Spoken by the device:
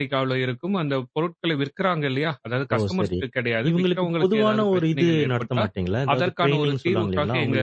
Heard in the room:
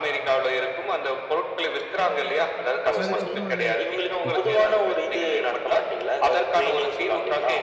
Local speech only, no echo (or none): அதுக்கப்புறம் அத ம்.